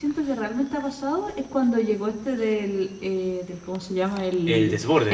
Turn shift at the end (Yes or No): No